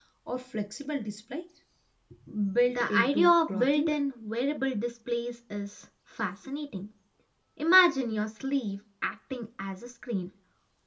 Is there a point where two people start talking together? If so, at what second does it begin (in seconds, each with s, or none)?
2.7 s